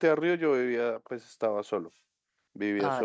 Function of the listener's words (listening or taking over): listening